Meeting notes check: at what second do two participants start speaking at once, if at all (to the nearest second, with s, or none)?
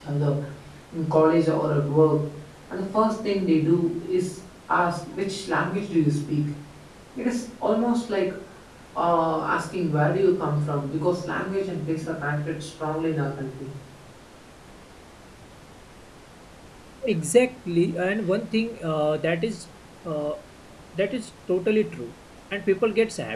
none